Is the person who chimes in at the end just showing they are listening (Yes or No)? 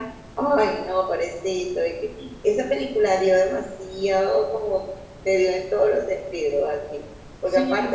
Yes